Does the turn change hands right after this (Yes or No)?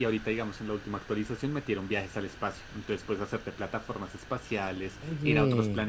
No